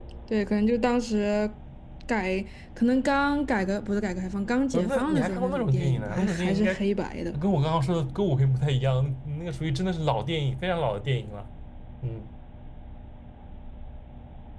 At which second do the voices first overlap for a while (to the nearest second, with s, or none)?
5 s